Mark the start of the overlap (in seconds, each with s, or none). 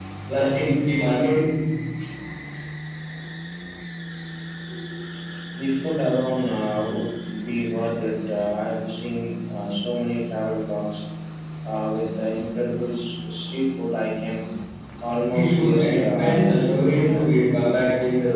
15.3 s